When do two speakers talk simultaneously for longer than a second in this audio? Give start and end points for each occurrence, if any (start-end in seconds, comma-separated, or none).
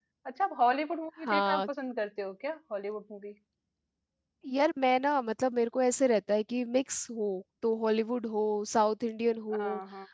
none